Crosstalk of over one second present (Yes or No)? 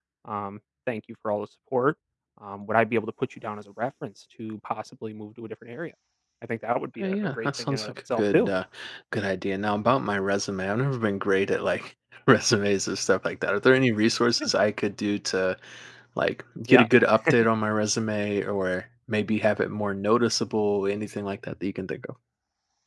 Yes